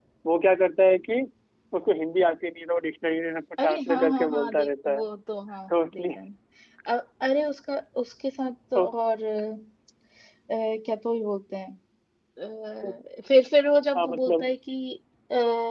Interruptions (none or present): present